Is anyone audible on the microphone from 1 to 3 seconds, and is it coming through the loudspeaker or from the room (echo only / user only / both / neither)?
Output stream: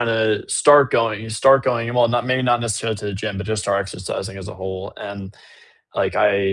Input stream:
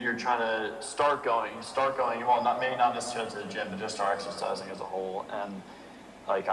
echo only